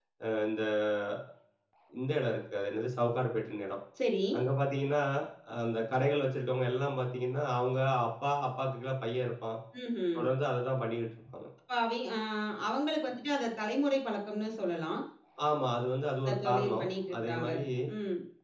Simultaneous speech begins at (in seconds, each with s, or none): 16.2 s